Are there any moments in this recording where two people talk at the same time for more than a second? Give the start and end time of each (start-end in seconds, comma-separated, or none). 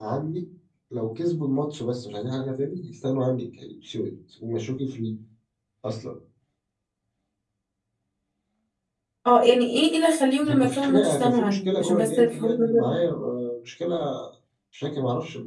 10.4-13.0